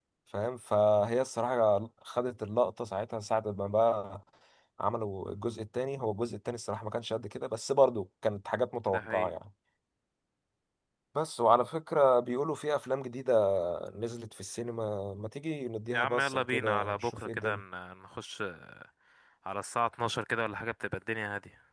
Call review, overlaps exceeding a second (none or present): present